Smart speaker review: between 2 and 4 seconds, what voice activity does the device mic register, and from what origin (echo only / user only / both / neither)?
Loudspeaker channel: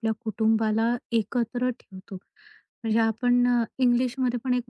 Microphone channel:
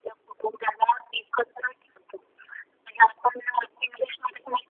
echo only